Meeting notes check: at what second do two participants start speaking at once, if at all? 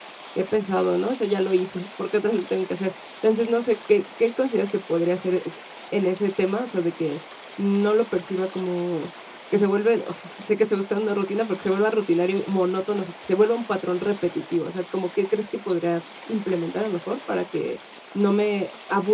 none

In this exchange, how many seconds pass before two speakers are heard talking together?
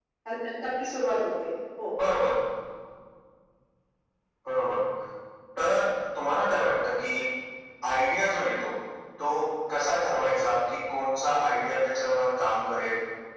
none

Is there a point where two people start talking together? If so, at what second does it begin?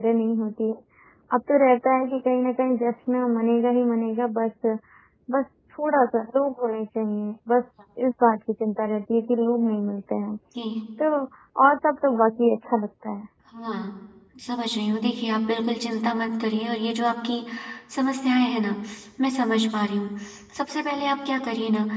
none

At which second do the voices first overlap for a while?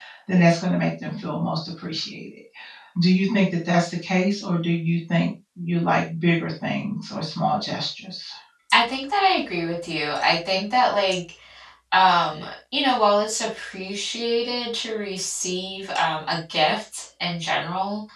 none

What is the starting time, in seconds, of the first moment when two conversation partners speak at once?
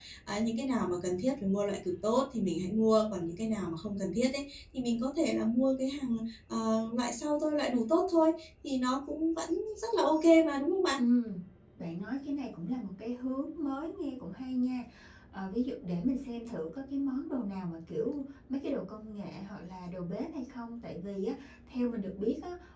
none

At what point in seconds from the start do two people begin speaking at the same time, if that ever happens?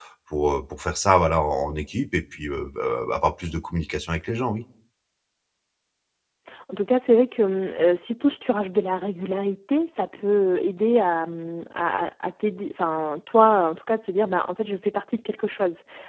none

